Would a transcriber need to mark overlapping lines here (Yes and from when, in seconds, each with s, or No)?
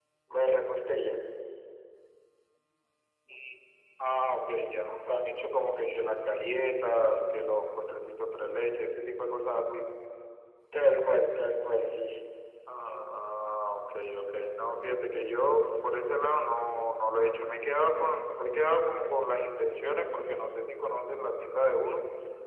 No